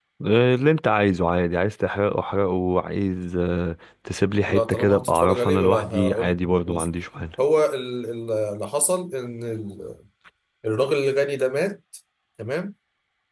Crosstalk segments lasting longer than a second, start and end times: 4.5-6.9

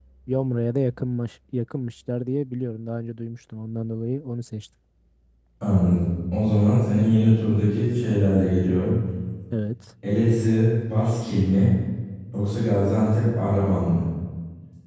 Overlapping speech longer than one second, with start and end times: none

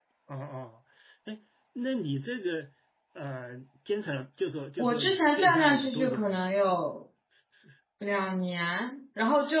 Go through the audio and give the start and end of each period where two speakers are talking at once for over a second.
4.8-6.4

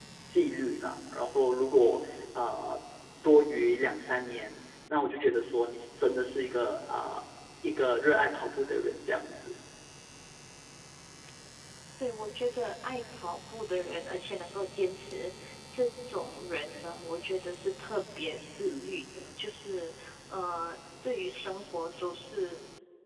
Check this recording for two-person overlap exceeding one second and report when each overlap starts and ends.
none

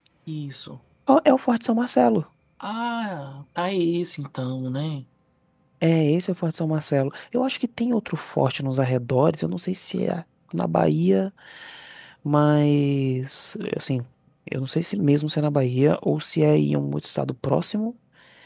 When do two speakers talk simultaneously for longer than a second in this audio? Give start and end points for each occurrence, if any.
none

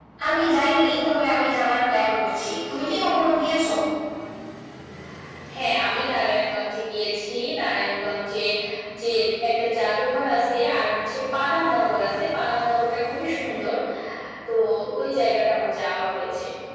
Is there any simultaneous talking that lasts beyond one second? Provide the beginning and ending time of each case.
none

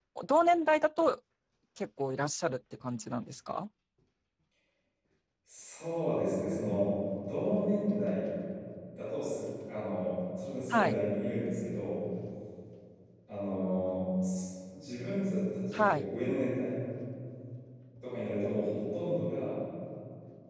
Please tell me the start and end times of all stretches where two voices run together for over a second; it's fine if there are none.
none

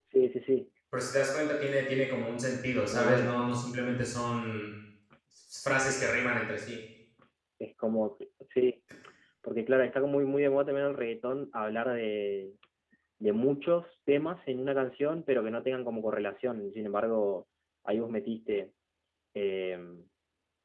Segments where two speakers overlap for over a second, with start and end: none

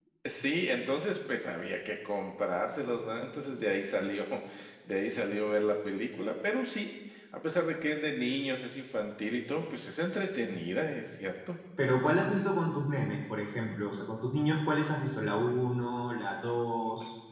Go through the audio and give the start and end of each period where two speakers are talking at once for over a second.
none

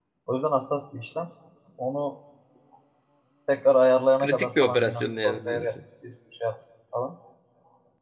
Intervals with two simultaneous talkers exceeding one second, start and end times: 4.2-5.7

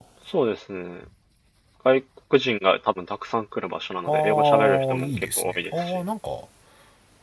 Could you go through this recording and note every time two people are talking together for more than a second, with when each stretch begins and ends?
4.1-6.0

